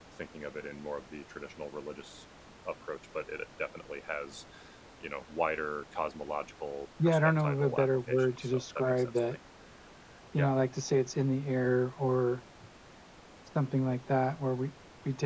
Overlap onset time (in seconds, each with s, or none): 7.0 s